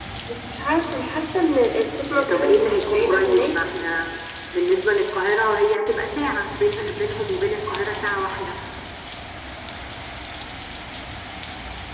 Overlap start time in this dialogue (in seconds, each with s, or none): 2.1 s